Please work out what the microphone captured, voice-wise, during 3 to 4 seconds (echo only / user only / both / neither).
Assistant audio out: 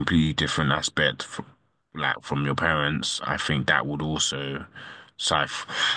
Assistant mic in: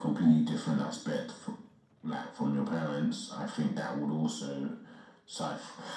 echo only